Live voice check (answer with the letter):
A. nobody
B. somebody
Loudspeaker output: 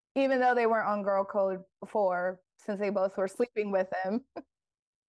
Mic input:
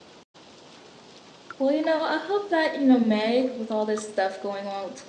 B